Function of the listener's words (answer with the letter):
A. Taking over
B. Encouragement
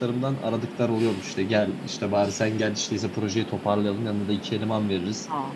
B